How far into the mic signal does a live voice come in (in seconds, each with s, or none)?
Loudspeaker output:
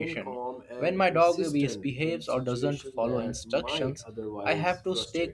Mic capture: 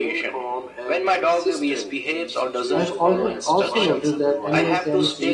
2.7 s